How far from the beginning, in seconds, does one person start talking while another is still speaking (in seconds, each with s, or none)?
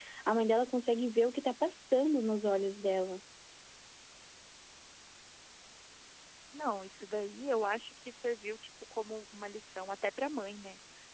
none